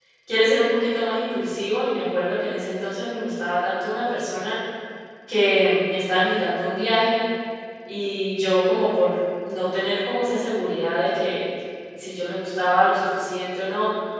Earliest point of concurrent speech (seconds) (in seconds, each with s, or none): none